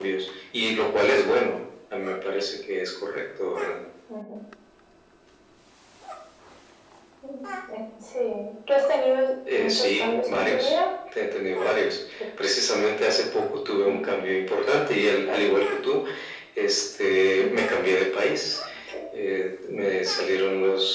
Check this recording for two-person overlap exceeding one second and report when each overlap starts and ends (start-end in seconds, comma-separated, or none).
9.5-10.7